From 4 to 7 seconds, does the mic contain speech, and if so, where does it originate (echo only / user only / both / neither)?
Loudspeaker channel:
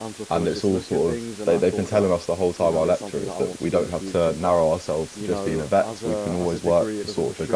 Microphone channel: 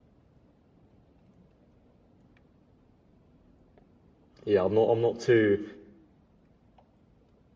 user only